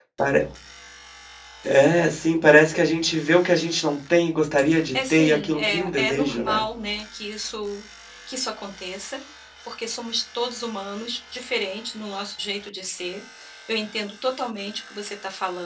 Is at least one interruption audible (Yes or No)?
Yes